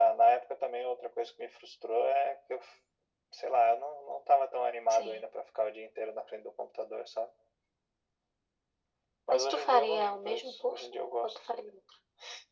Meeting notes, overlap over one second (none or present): present